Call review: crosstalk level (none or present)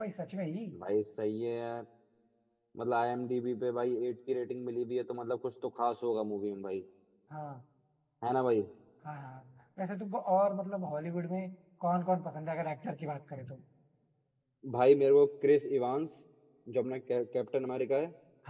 none